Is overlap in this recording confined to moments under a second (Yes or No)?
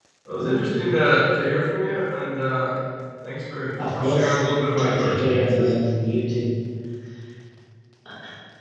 No